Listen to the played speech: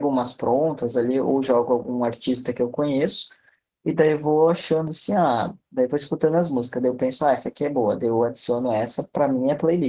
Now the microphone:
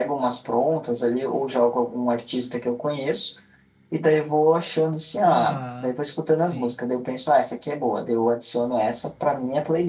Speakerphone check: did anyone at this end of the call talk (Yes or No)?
Yes